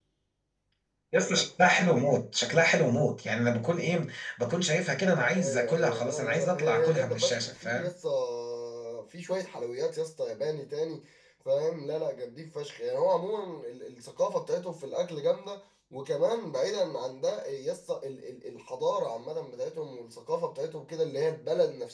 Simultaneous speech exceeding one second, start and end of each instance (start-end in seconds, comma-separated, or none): 5.4-7.9